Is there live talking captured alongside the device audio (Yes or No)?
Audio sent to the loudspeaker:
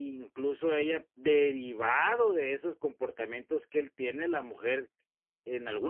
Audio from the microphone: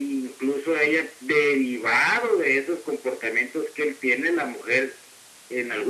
No